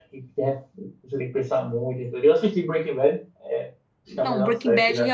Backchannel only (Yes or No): No